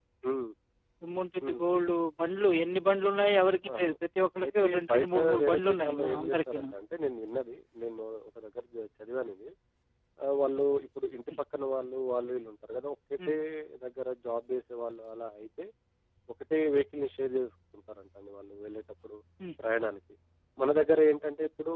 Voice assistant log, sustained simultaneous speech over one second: present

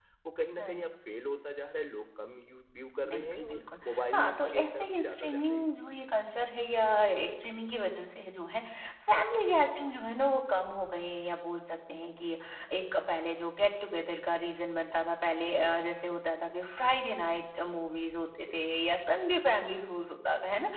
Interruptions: present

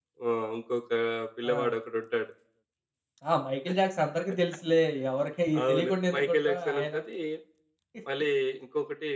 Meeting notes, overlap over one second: present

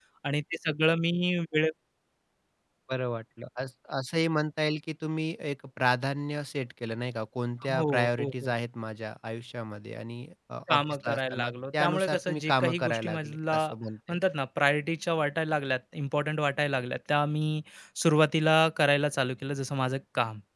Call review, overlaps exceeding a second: present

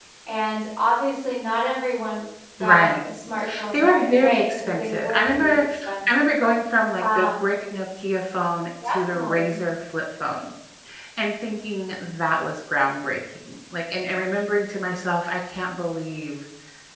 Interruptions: present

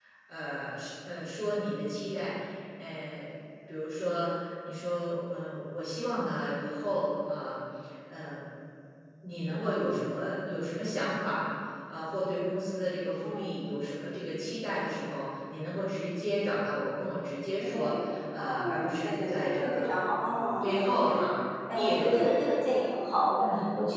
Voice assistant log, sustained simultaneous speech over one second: present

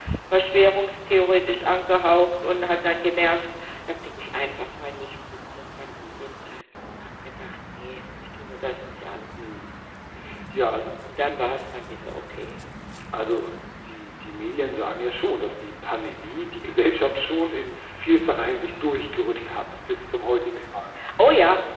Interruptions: none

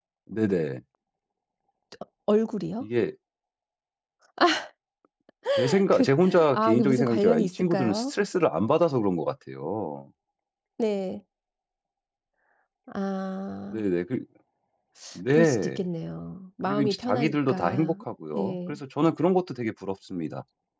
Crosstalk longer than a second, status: present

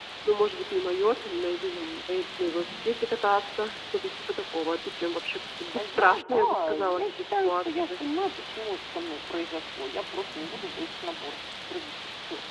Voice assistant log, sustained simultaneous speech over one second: present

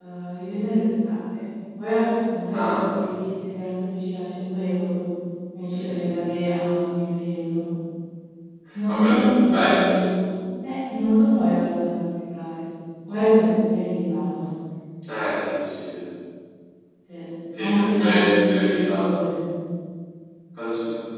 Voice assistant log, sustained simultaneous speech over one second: present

